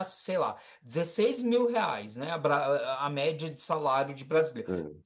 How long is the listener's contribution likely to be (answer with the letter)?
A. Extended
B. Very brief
B